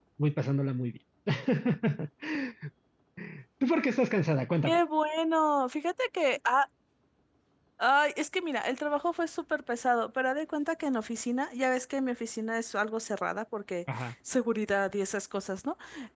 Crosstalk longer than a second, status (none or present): none